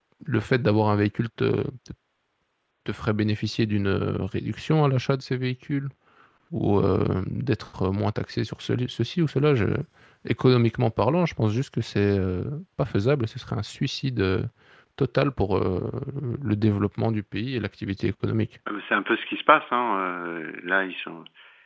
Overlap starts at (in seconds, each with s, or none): none